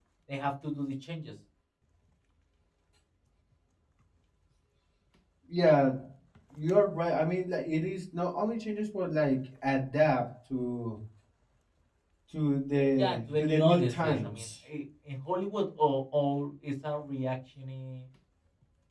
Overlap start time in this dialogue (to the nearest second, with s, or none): 13 s